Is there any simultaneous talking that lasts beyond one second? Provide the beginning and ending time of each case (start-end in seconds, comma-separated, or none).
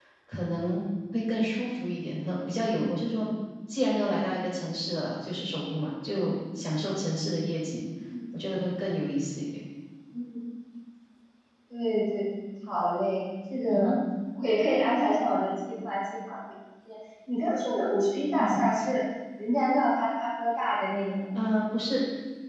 none